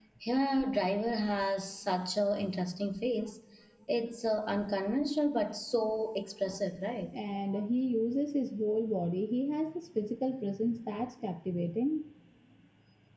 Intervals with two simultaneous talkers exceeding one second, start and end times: none

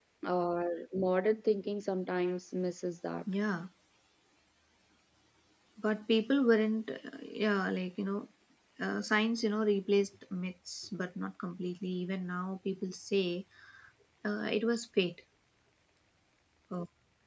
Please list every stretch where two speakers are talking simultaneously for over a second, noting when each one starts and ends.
none

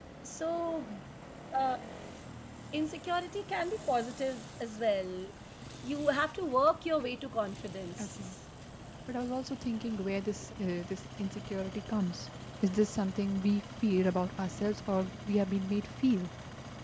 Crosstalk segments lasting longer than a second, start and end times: none

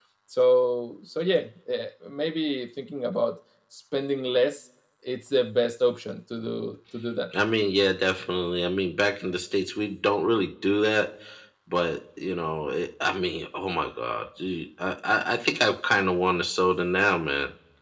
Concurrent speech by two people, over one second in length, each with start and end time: none

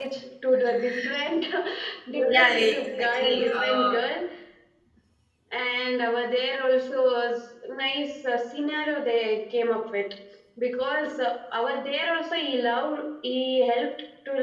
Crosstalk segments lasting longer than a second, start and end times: 2.3-4.0

